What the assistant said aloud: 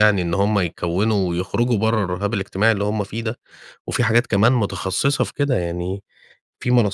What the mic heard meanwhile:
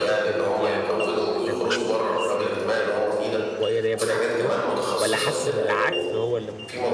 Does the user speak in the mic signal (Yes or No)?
Yes